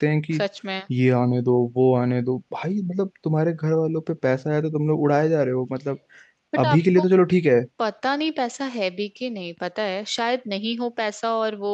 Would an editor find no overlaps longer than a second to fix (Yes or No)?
Yes